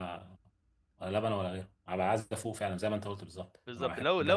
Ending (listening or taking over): taking over